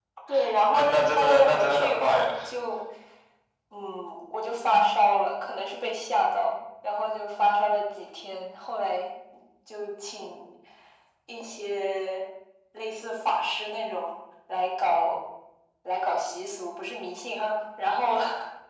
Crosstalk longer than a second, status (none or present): present